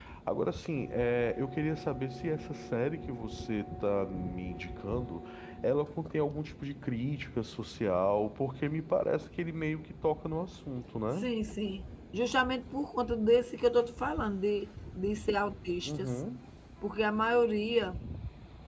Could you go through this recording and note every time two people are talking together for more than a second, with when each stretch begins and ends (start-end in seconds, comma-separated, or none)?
none